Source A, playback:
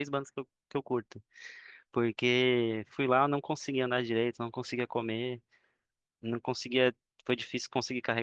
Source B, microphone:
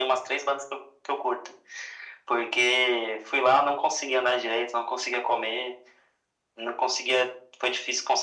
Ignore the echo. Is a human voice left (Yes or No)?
No